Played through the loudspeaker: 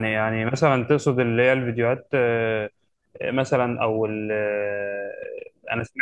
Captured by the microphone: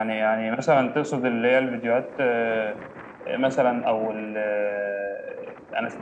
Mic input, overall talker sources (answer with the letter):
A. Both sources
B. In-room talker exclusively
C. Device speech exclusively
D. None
C